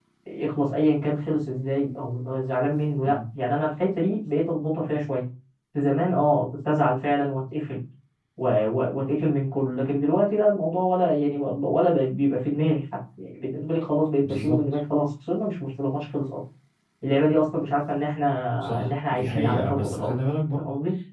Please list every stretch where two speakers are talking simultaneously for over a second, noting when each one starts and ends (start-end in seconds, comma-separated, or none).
18.8-20.1